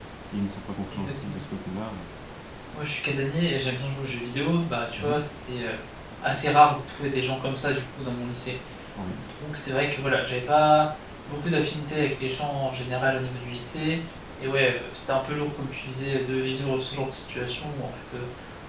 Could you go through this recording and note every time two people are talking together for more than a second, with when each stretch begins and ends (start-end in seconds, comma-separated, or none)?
none